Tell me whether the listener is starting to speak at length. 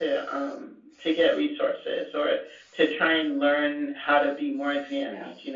No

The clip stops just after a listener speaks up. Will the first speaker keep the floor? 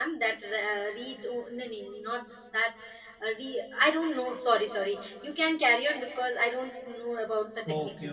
No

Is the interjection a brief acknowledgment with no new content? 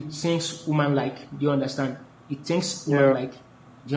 Yes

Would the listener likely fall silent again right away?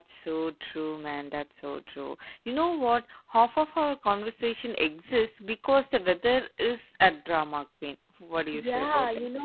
No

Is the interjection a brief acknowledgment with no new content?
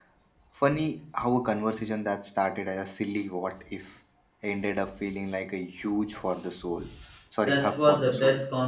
No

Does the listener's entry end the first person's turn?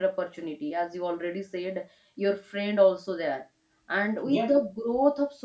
No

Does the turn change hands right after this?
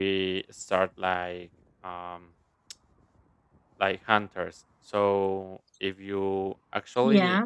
No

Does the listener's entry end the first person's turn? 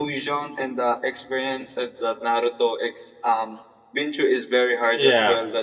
Yes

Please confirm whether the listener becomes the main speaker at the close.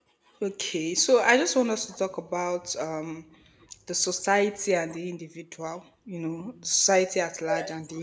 No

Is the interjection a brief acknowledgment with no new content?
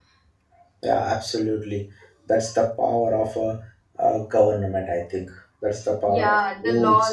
No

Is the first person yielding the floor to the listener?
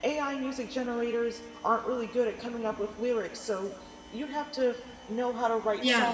No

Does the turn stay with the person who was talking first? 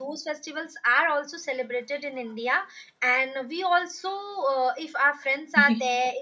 Yes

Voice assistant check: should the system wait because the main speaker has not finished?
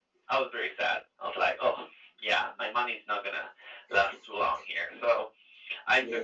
Yes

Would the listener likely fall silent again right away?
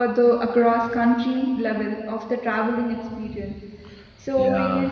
Yes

